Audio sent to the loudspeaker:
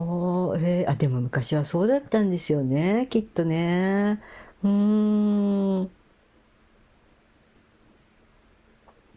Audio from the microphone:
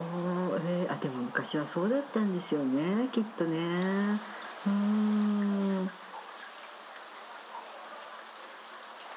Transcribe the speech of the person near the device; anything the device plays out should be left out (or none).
none